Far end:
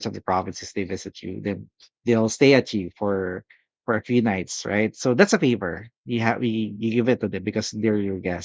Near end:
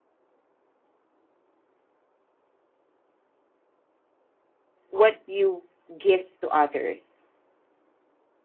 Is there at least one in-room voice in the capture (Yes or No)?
Yes